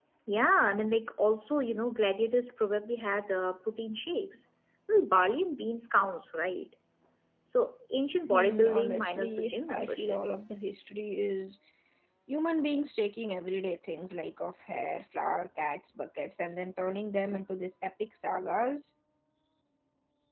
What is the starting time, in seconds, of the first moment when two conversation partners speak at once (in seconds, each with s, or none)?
8.3 s